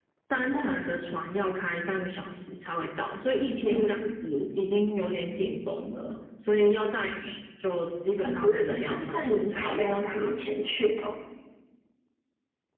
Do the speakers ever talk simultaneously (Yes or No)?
Yes